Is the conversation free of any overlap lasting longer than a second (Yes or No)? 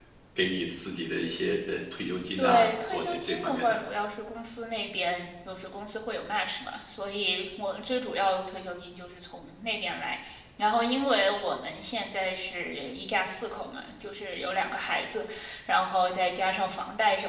No